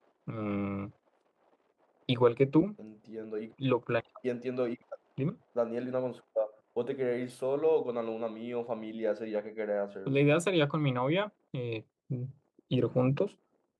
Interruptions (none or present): none